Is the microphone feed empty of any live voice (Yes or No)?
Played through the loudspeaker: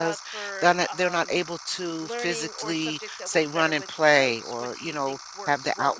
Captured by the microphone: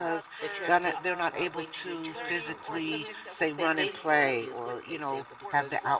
No